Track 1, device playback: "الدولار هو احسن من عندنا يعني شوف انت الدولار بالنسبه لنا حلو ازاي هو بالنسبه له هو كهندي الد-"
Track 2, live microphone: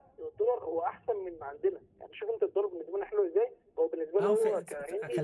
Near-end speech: present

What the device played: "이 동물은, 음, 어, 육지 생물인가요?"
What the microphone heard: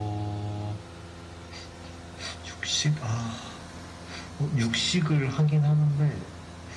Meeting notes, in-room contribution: present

